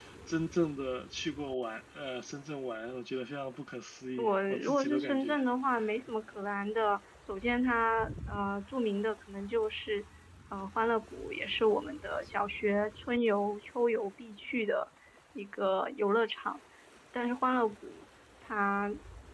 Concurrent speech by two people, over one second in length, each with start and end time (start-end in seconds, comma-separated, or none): 4.2-5.4